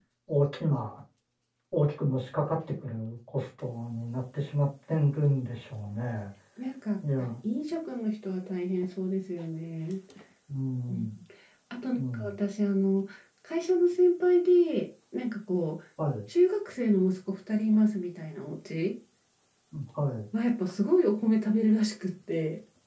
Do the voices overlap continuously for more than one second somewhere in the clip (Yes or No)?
No